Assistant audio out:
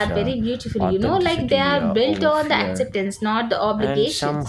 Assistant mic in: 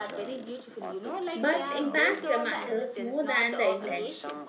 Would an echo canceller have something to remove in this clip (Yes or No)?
Yes